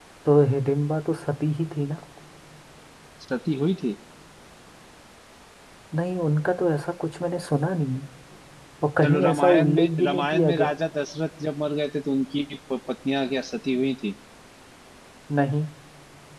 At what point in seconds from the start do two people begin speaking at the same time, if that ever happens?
9.0 s

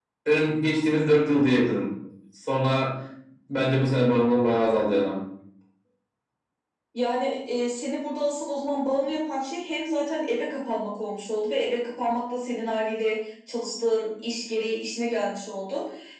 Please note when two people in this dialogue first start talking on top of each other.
none

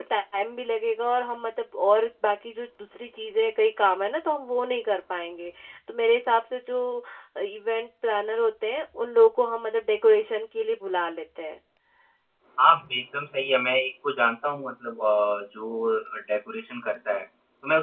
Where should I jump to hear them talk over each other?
none

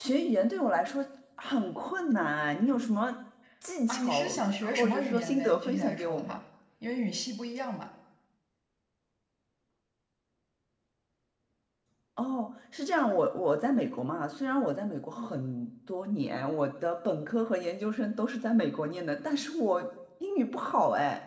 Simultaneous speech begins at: 3.9 s

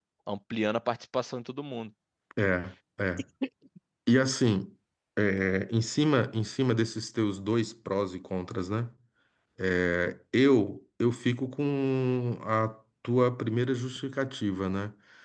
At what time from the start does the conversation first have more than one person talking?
none

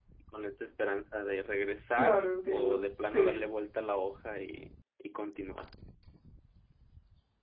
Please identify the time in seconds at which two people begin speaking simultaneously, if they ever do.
2.0 s

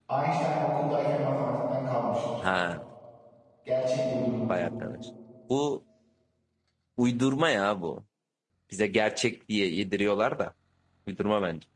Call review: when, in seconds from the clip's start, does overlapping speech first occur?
none

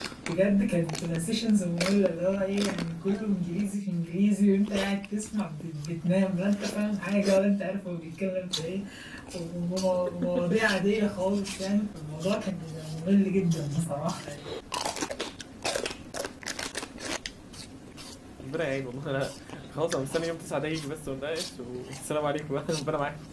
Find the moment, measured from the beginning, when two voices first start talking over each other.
none

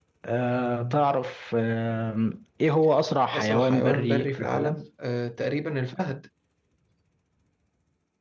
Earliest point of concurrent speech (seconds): 3.3 s

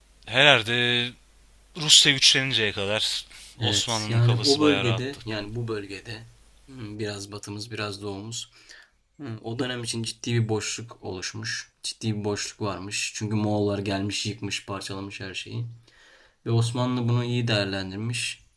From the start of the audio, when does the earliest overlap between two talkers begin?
3.6 s

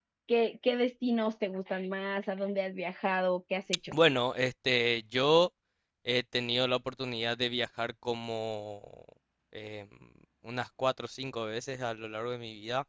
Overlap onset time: none

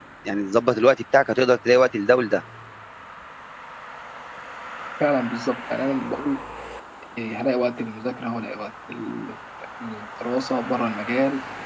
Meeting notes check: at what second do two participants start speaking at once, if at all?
none

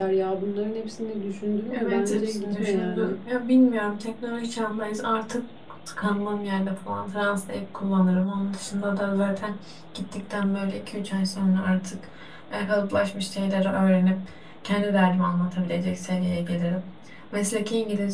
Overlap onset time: 1.7 s

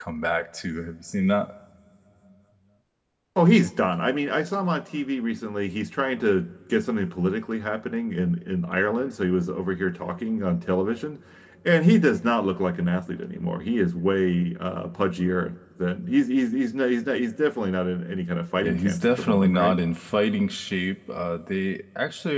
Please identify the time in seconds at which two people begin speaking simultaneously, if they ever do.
18.6 s

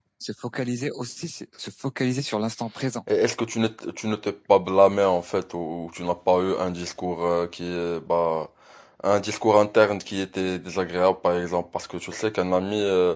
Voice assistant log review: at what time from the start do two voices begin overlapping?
none

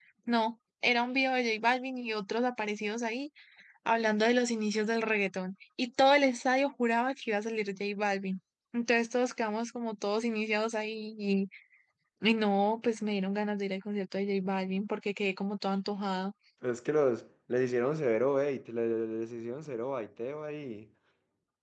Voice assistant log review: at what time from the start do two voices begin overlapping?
none

